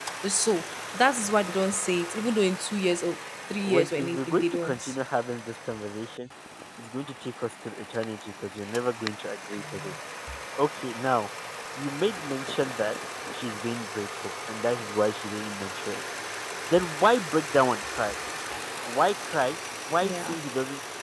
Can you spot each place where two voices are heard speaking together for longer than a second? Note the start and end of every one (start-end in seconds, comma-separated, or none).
3.6-5.0